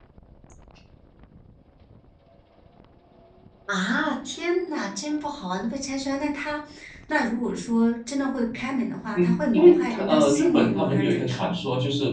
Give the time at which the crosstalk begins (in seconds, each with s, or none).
9.2 s